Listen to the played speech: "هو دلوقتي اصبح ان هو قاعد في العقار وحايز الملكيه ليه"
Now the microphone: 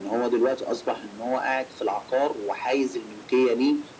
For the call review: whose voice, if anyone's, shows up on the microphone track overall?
echo only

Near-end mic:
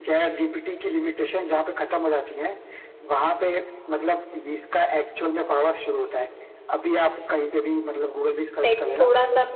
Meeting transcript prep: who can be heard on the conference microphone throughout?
both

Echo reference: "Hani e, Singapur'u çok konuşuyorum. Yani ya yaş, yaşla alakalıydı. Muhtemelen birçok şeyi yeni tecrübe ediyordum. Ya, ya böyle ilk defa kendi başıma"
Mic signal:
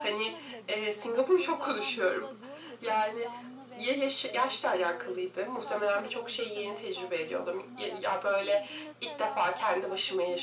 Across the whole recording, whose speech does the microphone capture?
both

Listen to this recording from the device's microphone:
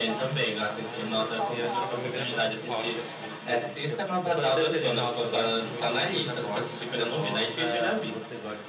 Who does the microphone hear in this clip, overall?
both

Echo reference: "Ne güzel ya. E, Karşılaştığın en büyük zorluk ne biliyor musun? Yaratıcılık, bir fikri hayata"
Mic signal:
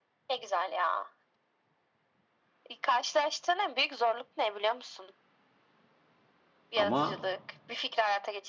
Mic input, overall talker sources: both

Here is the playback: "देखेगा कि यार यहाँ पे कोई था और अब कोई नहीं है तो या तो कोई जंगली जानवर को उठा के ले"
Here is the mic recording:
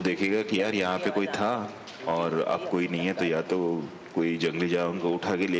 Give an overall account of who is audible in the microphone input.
both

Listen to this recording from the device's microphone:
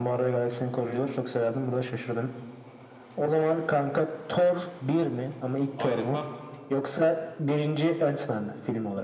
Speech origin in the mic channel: both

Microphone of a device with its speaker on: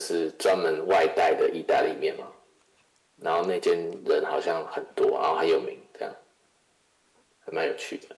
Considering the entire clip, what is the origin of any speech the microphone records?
echo only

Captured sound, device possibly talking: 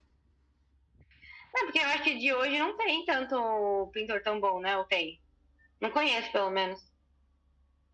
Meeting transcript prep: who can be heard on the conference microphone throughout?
echo only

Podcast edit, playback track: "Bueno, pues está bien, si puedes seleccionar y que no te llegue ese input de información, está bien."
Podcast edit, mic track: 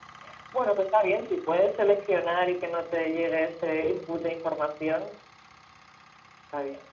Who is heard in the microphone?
echo only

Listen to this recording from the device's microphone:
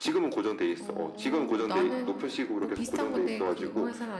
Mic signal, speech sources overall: both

